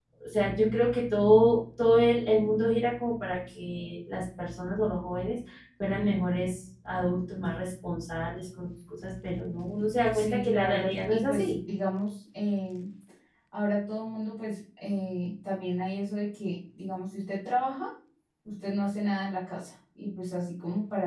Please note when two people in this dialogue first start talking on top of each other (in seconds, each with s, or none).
10.1 s